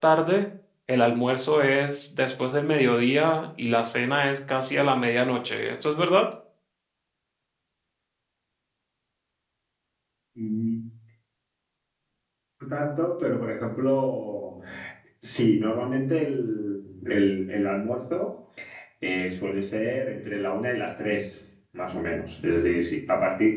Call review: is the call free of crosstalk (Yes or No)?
Yes